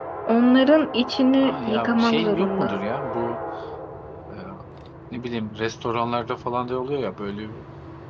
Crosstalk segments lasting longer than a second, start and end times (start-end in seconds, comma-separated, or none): 1.4-2.8